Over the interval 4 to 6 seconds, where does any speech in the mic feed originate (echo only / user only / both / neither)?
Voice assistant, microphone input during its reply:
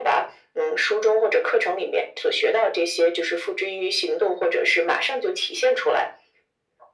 echo only